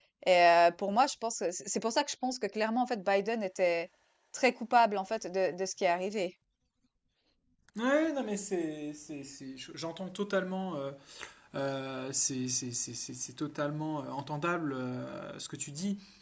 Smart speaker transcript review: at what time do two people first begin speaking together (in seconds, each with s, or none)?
none